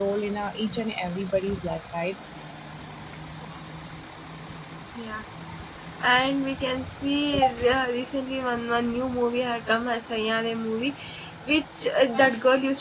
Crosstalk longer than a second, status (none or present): none